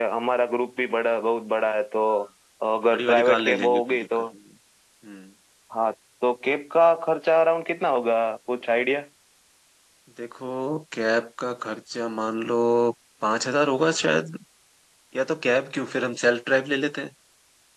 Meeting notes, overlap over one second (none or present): present